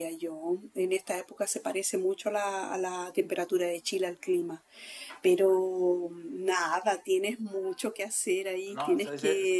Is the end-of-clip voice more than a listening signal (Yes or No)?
Yes